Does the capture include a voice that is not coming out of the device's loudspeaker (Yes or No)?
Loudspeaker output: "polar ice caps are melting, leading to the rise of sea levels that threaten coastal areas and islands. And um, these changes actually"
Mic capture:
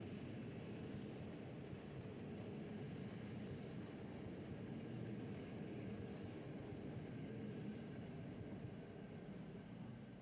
No